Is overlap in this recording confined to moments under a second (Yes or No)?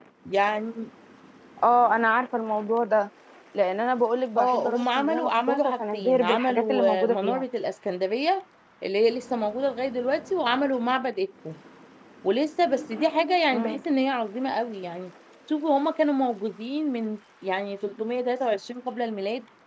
No